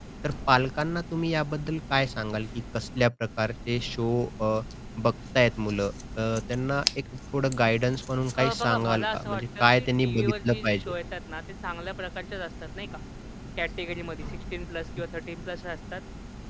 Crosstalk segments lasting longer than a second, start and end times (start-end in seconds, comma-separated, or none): 8.4-11.0